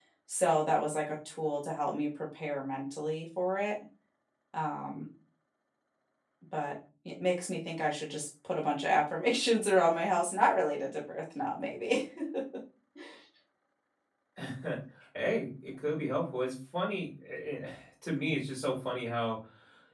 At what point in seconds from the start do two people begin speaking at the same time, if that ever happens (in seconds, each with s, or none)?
none